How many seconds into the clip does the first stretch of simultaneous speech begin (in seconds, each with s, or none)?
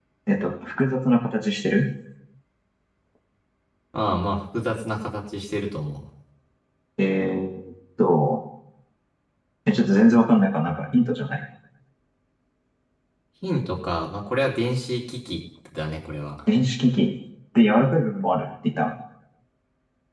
none